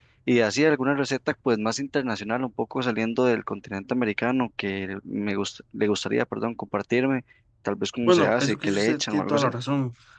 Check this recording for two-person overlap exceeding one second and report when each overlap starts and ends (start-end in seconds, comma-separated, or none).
8.1-9.5